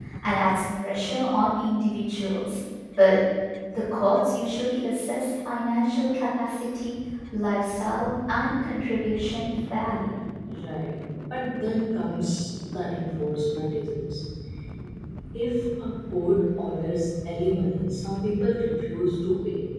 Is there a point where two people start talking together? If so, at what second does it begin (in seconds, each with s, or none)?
none